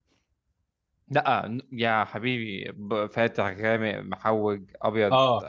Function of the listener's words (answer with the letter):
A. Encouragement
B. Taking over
B